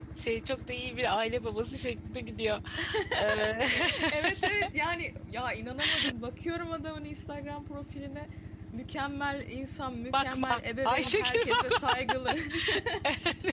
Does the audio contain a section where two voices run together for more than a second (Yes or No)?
Yes